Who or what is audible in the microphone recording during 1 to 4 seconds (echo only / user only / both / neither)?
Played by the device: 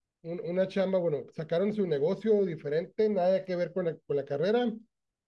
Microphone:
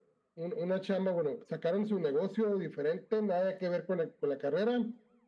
echo only